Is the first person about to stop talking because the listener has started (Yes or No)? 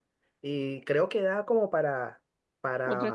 No